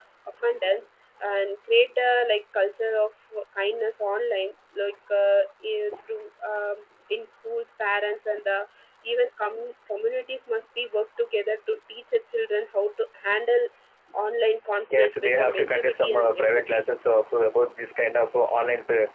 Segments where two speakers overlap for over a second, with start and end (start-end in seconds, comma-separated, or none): 15.0-16.8